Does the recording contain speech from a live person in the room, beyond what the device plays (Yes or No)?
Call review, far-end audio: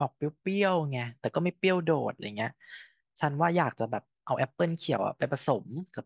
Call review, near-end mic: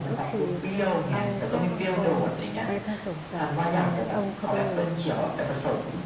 Yes